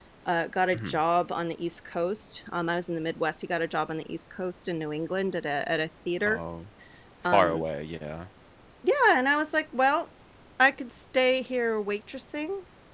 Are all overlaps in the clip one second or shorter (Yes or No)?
Yes